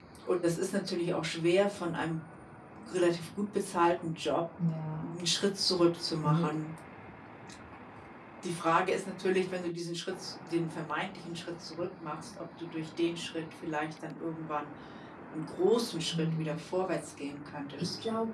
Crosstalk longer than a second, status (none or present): none